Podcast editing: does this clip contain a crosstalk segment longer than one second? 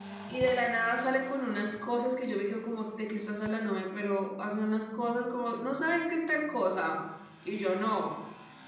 No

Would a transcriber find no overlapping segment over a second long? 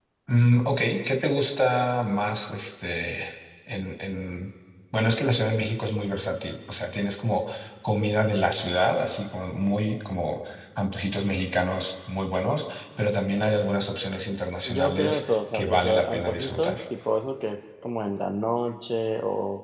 No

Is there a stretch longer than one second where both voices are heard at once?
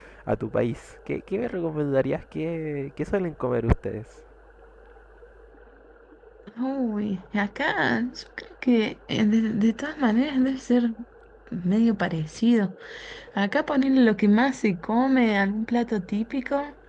No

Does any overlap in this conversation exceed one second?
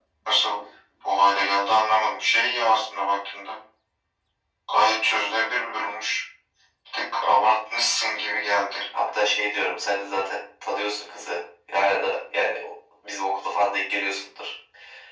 No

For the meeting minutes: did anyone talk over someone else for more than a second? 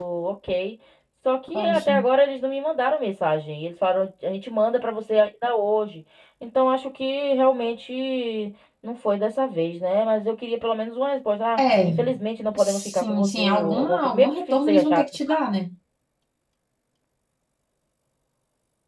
Yes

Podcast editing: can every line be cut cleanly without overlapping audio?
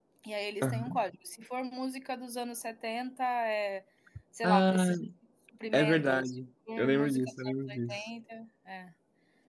No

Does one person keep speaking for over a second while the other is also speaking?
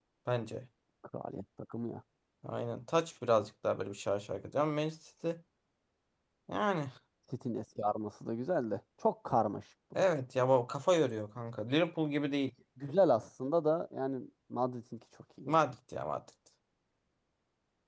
No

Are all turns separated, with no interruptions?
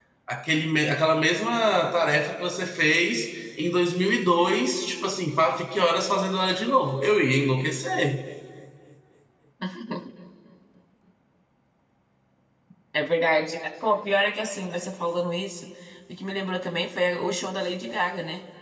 Yes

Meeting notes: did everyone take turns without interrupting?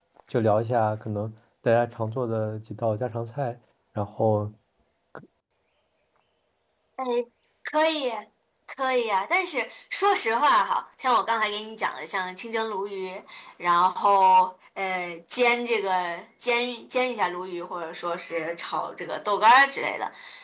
Yes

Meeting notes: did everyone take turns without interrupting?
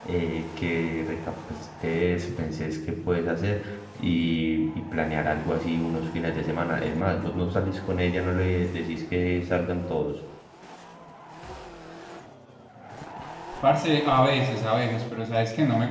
Yes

